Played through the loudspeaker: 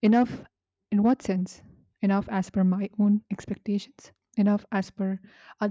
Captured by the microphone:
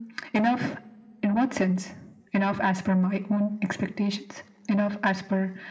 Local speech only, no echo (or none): none